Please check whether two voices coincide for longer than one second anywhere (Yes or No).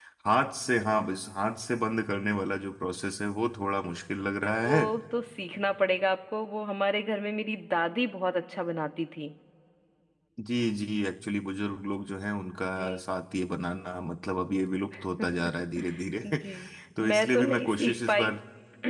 Yes